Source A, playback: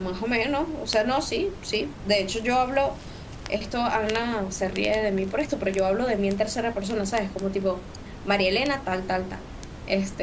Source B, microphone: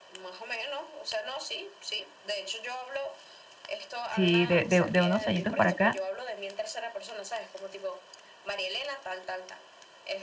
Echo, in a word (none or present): present